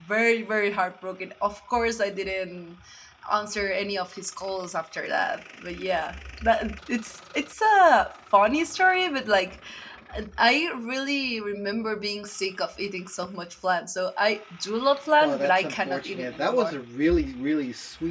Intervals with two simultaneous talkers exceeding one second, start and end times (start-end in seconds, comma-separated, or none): 15.2-16.7